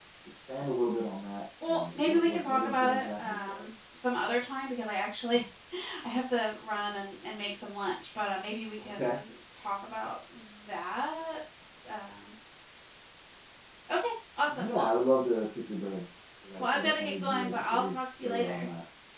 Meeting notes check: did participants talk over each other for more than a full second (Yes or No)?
Yes